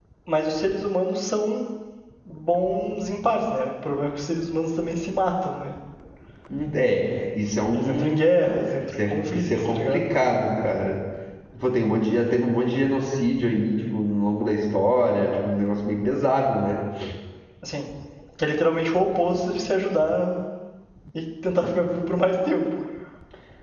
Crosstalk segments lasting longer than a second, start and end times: 9.0-10.2

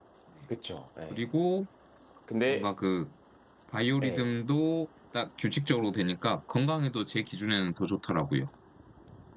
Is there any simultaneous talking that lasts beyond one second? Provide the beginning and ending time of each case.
none

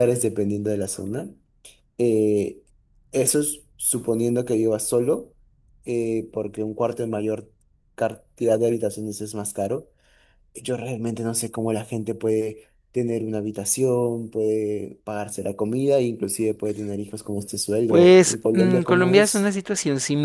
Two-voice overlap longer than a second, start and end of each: 17.9-19.4

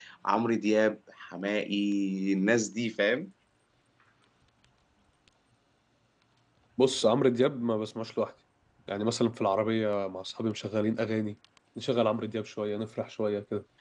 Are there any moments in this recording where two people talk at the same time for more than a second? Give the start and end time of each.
none

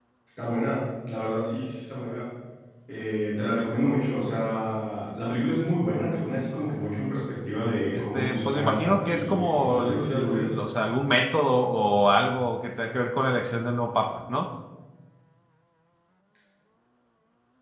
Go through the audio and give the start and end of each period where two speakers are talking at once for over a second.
7.9-10.5

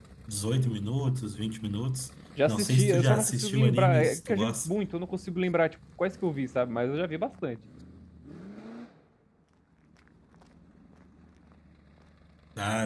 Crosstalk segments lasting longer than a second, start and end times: 2.5-4.7

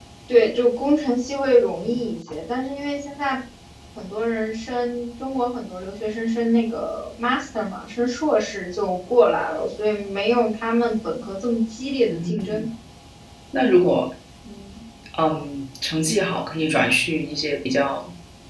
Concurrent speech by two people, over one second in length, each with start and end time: none

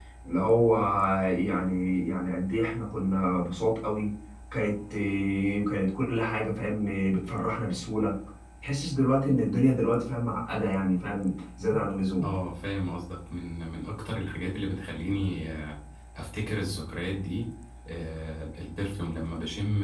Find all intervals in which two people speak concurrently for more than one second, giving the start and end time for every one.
none

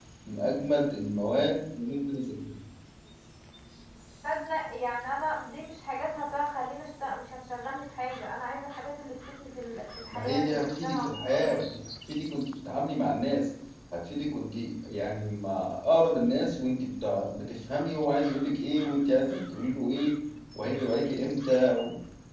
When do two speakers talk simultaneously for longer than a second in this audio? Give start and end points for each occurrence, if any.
10.1-11.6

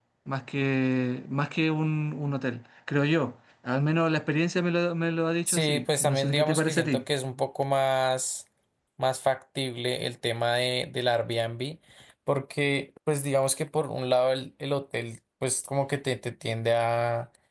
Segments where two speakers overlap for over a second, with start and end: 5.5-7.0

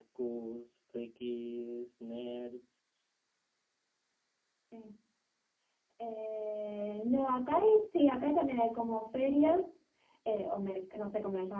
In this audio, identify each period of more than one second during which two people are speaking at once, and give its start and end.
none

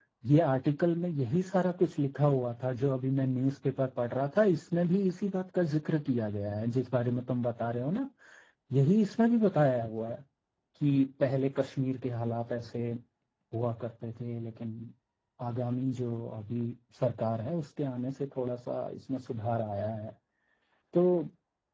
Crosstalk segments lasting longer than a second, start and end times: none

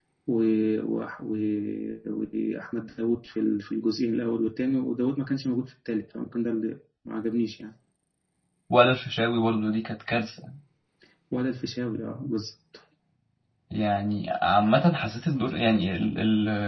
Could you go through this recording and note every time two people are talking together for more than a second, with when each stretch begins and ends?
none

